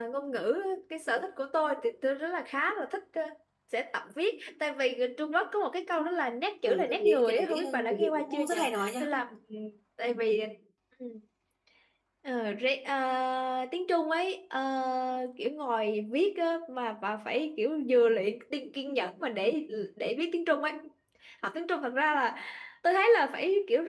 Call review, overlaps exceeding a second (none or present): present